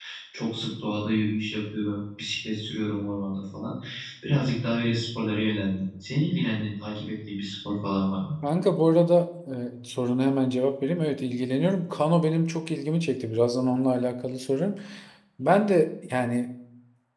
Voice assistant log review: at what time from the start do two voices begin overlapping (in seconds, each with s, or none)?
none